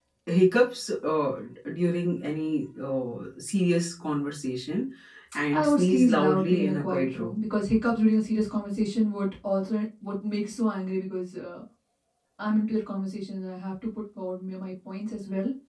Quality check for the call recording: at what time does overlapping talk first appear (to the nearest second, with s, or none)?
6 s